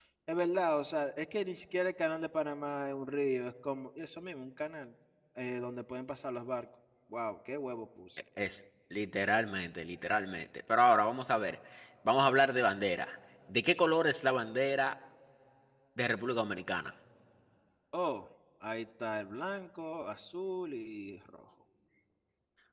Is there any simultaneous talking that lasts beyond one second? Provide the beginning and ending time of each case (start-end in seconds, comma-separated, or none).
none